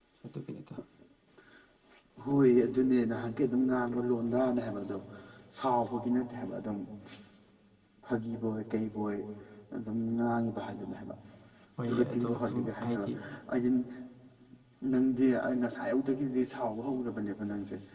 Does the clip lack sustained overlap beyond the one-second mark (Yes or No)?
No